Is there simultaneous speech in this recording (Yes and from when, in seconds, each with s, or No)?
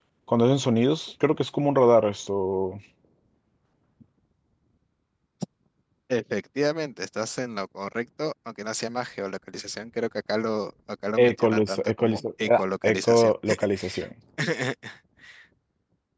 Yes, from 11.2 s